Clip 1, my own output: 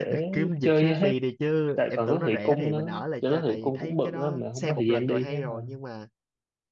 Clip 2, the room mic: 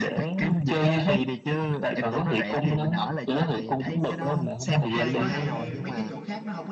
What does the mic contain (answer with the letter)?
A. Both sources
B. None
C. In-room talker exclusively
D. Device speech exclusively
A